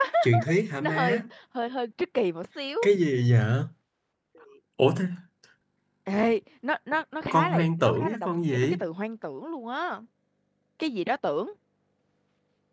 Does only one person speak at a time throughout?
No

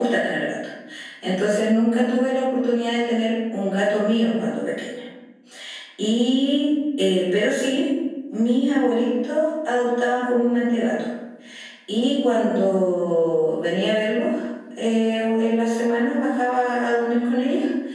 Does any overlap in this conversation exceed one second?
No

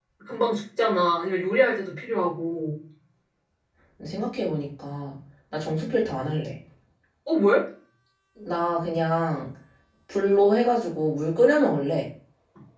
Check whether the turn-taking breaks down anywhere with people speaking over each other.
No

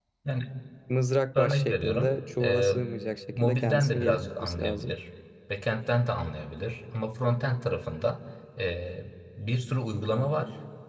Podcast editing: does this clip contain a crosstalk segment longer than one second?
Yes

